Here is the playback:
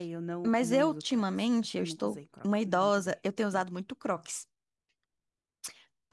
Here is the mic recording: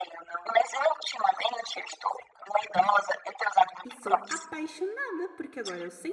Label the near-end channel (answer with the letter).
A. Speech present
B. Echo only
A